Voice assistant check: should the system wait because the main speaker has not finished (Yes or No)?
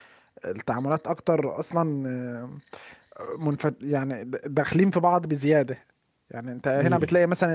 Yes